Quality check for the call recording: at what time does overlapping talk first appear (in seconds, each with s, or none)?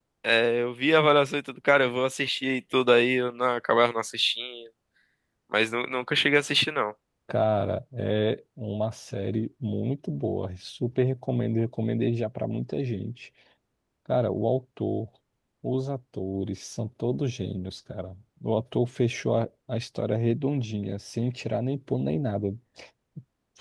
none